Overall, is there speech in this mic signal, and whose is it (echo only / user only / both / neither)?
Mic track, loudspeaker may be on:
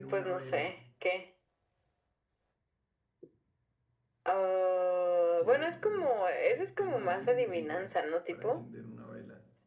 both